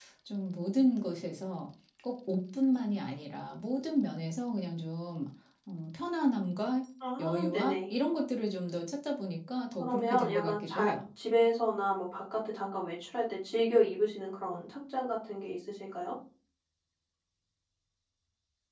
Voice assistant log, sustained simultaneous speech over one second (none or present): present